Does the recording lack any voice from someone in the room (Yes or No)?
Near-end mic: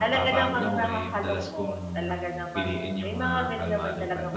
No